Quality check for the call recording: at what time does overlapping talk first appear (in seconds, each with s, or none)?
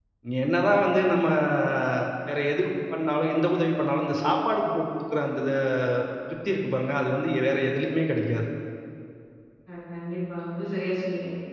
none